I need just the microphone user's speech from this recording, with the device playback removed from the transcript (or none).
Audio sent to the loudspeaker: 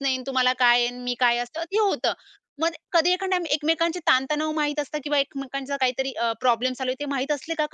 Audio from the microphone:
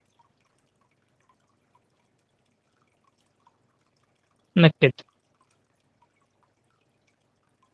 नक्कीच.